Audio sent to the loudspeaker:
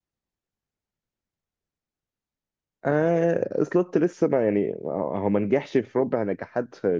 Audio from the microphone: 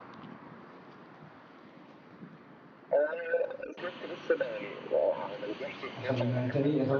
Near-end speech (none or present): present